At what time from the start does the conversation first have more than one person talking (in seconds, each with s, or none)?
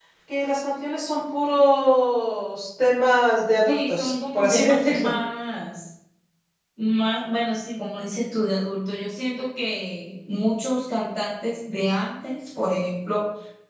3.7 s